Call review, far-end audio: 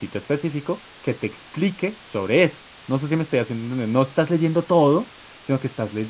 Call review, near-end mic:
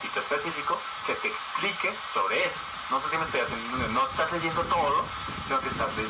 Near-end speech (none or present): none